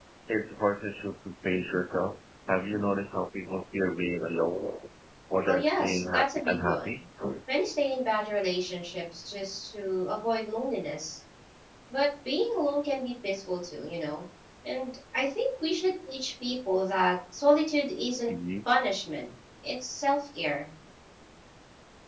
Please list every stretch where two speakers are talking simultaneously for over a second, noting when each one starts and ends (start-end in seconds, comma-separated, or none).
5.5-6.9